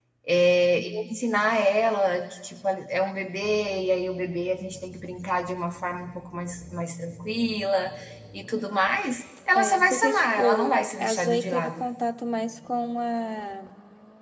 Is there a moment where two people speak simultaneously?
Yes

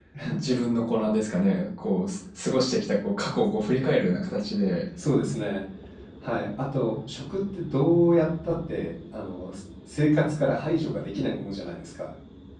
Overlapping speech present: No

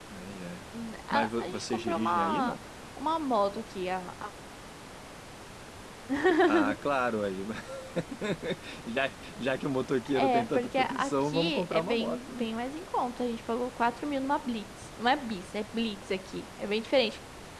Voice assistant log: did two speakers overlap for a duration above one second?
Yes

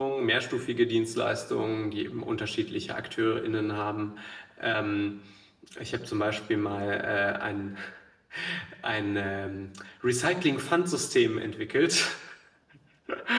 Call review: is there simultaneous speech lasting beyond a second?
No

